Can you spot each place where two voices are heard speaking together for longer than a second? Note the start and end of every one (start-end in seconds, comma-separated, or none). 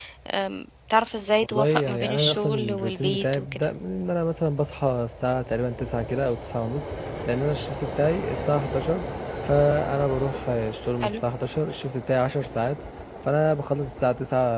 1.4-3.6